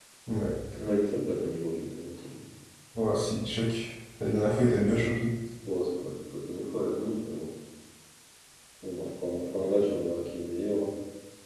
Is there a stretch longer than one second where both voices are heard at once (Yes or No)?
No